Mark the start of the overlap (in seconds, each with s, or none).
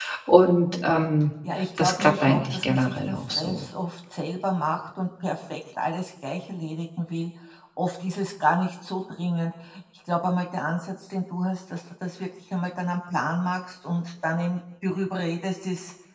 1.8 s